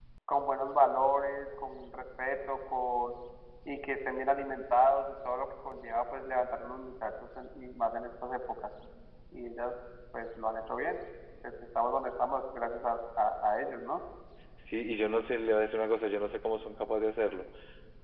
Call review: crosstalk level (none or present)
none